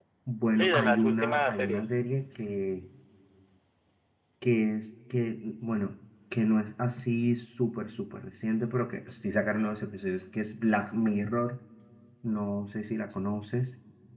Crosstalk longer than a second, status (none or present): present